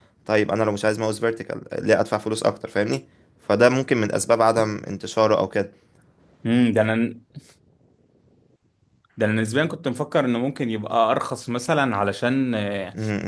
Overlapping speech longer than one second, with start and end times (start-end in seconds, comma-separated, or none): none